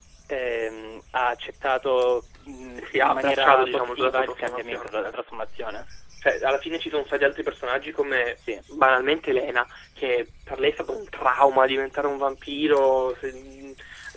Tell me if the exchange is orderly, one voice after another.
No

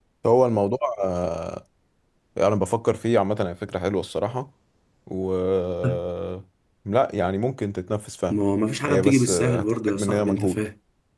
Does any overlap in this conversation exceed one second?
Yes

